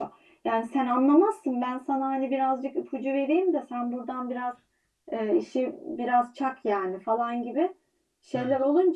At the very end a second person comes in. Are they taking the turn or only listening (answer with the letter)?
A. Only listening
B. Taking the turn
A